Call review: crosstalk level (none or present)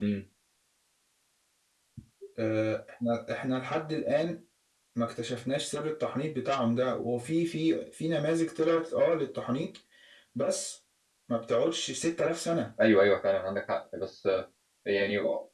none